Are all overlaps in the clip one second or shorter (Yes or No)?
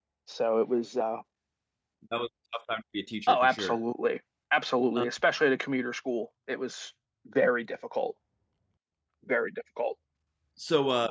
Yes